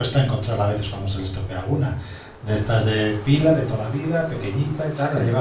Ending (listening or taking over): listening